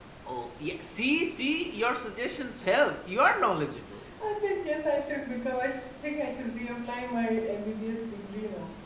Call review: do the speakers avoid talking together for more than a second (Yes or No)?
Yes